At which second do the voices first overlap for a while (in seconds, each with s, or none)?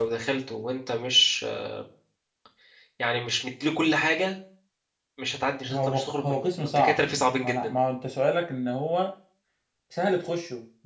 5.7 s